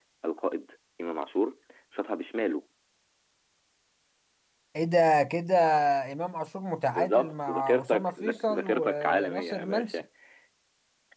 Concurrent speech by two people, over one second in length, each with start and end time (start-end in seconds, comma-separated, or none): 6.9-10.0